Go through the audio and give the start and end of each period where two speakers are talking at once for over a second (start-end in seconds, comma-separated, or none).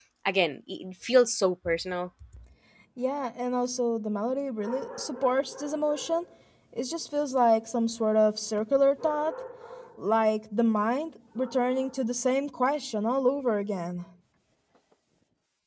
none